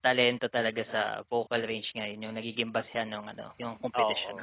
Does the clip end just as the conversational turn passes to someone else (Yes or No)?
No